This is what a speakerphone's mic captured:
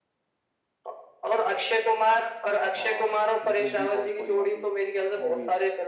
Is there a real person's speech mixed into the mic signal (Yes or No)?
Yes